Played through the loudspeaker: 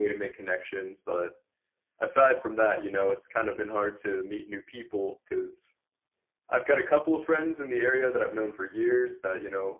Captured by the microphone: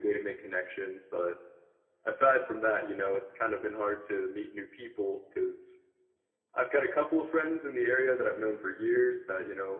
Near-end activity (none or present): none